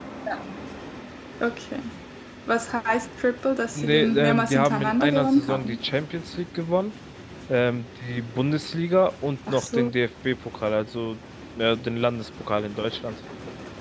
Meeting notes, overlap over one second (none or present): present